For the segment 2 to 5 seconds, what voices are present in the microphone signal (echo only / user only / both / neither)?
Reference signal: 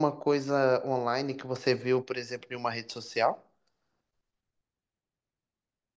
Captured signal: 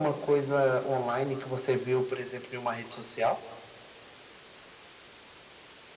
echo only